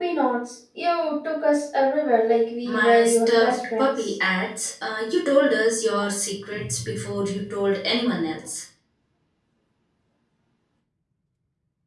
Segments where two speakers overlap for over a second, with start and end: 2.6-4.1

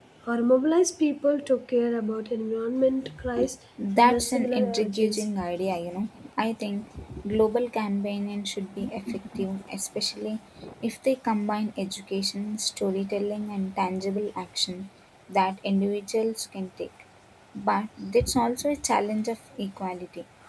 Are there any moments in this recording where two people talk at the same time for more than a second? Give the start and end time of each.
4.0-5.2

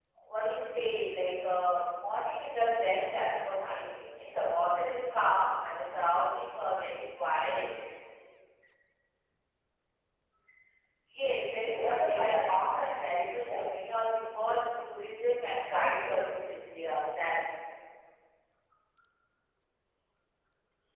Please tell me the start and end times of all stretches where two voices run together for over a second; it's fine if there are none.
11.6-13.6

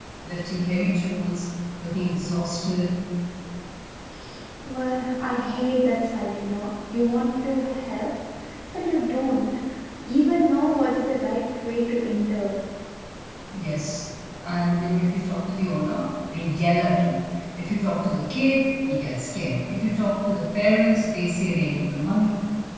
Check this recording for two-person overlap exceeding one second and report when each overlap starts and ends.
none

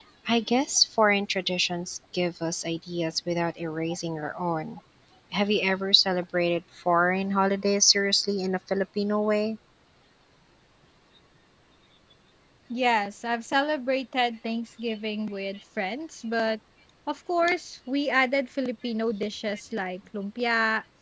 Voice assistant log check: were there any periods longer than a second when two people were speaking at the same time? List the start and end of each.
none

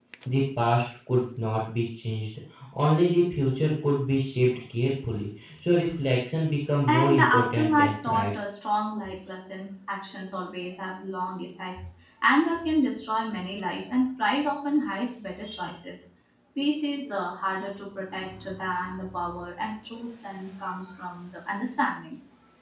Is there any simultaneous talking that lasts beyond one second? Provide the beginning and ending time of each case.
6.9-8.3

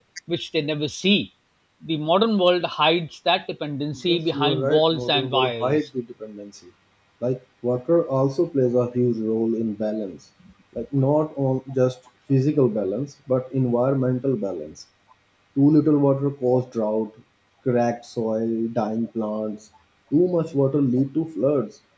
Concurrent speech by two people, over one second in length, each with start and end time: 4.1-5.9

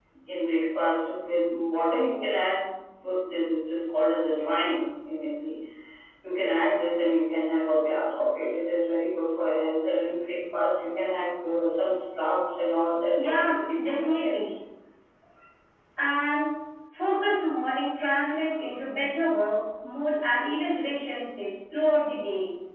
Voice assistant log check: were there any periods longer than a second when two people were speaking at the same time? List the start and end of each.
13.2-14.5

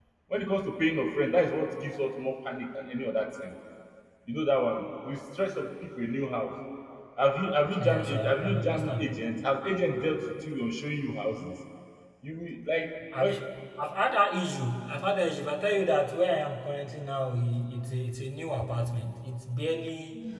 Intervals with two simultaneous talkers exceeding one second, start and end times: 7.8-9.1

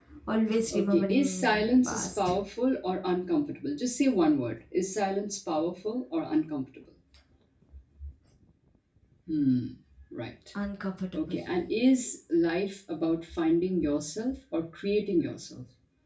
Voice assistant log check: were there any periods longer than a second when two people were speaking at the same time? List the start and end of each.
0.7-2.4

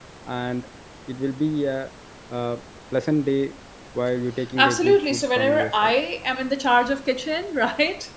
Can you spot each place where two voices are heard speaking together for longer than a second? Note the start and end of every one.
4.6-5.9

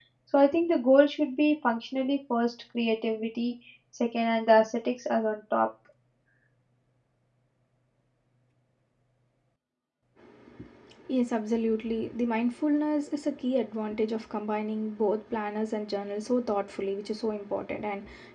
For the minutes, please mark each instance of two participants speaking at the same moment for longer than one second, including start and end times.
none

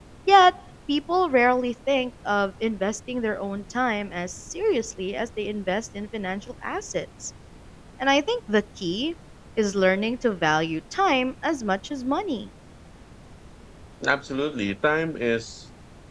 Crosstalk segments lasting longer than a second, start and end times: none

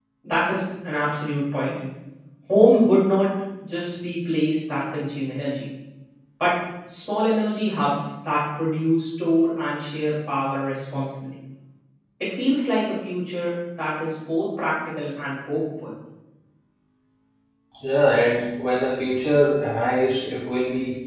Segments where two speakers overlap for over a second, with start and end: none

